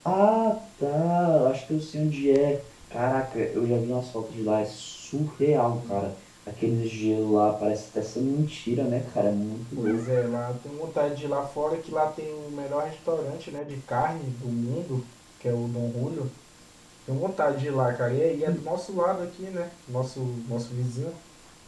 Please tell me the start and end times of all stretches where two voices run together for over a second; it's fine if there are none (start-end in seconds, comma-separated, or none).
none